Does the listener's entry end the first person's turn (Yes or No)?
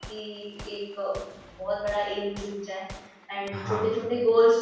No